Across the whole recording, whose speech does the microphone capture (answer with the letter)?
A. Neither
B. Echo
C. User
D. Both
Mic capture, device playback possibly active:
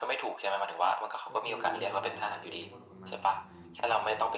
D